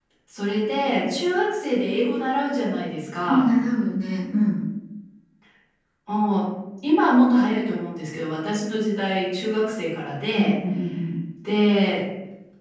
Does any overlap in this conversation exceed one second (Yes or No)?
No